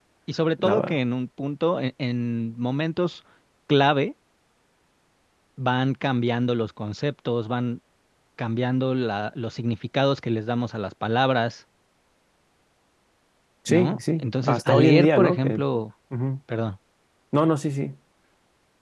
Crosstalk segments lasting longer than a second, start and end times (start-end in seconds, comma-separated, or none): 13.7-15.6